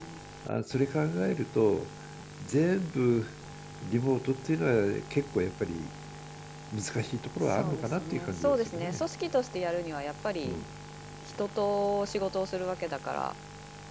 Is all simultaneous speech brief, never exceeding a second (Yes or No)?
No